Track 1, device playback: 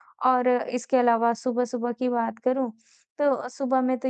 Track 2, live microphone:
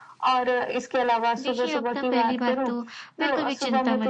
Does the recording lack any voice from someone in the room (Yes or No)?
No